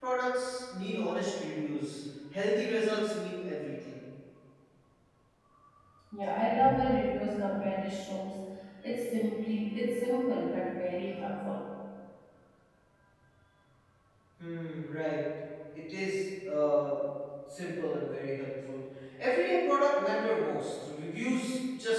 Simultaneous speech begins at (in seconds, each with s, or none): none